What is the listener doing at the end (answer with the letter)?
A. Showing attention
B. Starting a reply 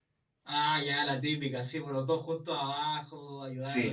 B